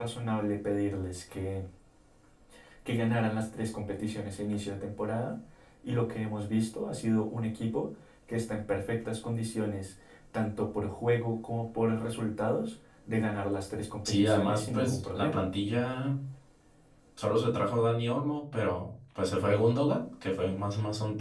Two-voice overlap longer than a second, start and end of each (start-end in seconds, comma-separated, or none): 14.1-15.5